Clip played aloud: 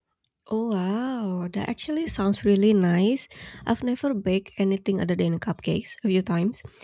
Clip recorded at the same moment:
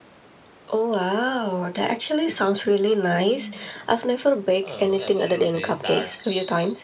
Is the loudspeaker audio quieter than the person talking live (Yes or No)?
No